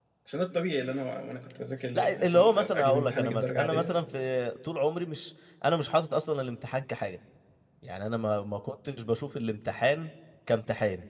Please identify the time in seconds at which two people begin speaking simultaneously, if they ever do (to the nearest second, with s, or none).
2 s